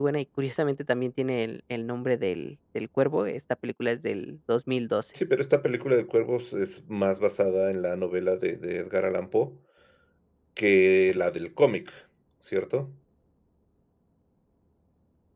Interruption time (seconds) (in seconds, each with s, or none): none